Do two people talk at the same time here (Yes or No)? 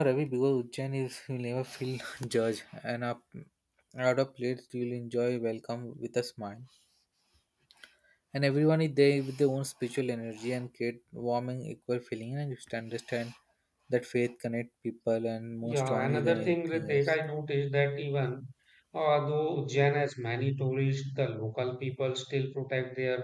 Yes